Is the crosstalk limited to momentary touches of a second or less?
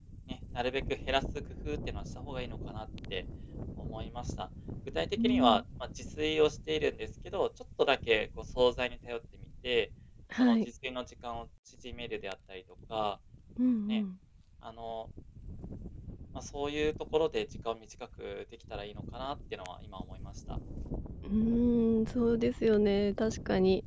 Yes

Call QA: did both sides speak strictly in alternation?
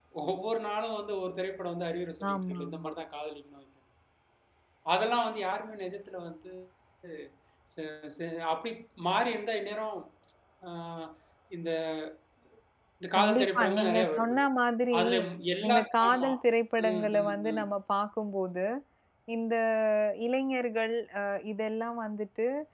No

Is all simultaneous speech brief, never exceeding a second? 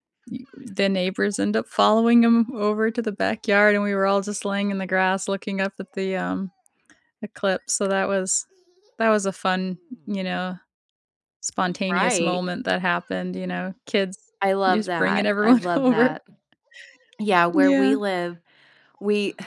No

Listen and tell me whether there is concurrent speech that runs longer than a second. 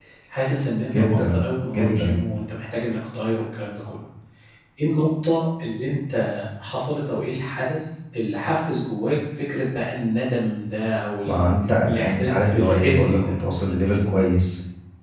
Yes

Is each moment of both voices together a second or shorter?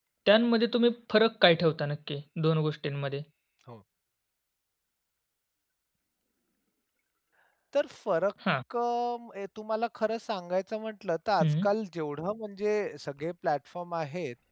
Yes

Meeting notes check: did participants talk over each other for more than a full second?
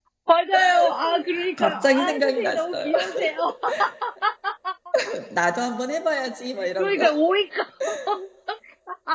Yes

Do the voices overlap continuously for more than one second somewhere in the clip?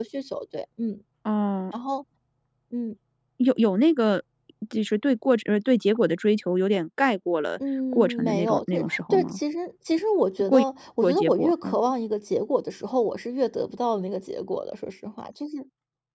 Yes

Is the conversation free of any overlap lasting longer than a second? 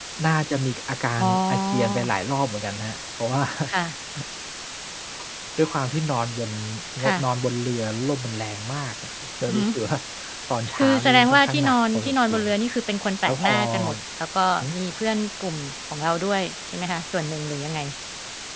No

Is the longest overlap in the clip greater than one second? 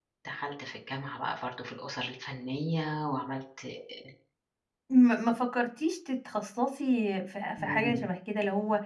No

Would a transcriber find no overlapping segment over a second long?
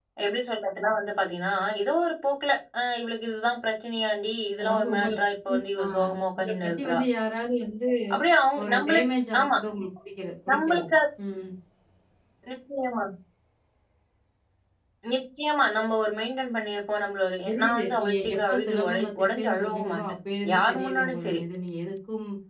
No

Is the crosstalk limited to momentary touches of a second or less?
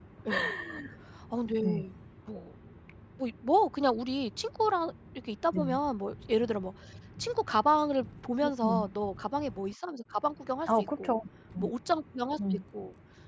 Yes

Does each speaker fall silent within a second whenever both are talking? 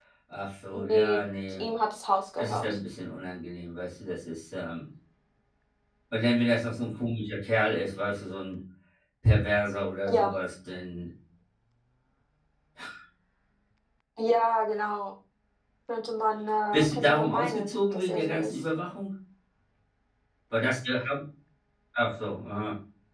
No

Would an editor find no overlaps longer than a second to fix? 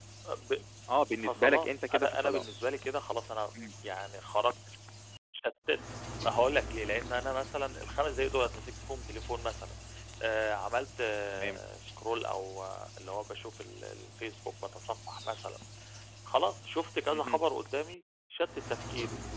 No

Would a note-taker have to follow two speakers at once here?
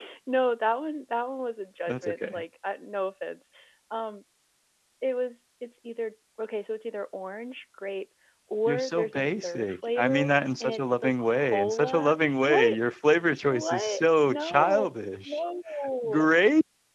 Yes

